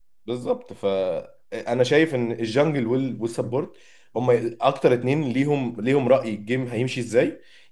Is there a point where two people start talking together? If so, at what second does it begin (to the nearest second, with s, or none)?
none